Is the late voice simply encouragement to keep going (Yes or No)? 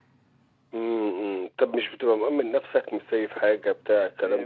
No